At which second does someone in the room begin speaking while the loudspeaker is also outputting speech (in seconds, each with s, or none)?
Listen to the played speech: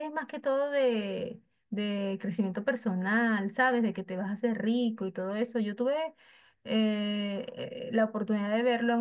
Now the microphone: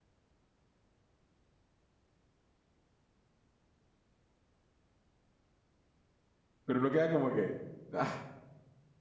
6.6 s